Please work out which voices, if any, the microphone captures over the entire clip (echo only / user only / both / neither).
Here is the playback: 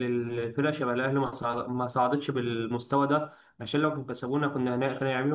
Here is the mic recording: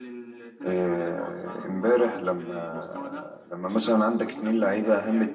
both